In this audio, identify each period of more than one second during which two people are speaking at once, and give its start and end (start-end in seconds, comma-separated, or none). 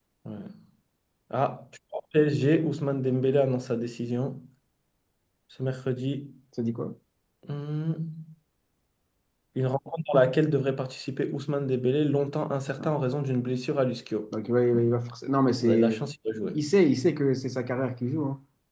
none